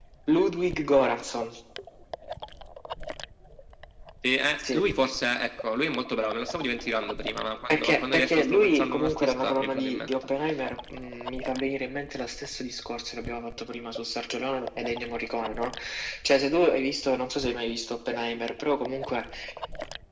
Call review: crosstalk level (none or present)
present